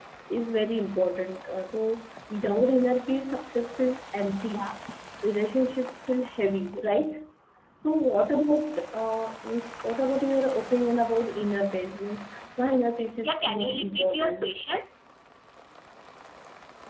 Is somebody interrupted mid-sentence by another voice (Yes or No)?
Yes